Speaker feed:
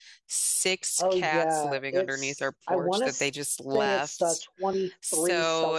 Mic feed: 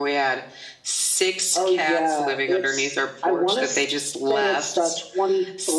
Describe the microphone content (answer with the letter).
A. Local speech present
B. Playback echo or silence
B